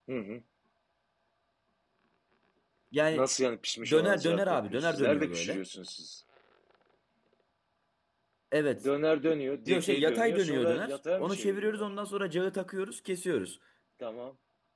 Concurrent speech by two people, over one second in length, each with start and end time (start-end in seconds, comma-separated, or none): 3.9-5.6, 9.7-11.9